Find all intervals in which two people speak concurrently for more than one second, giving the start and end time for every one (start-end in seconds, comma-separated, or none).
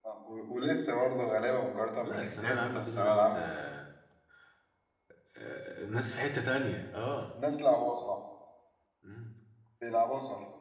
2.0-3.4